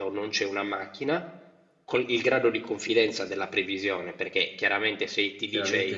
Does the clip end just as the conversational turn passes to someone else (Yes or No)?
Yes